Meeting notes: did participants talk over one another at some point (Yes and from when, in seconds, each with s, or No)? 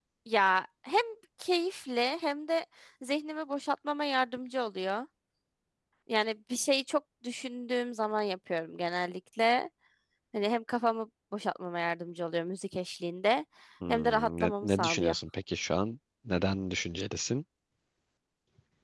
Yes, from 13.9 s